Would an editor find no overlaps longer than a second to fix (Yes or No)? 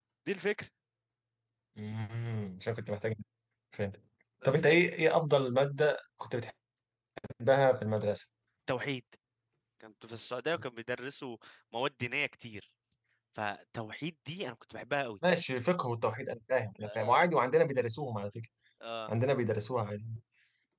Yes